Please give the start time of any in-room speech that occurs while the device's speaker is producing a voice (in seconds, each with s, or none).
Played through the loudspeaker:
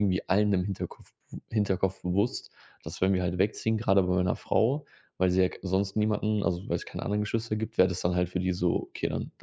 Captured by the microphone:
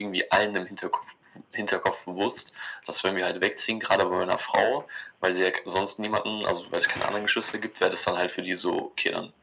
none